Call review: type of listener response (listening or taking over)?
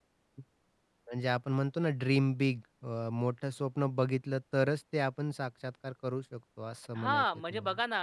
taking over